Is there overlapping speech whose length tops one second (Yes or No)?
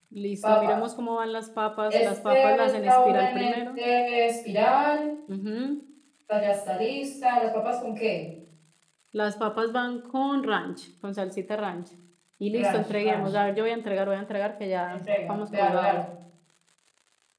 Yes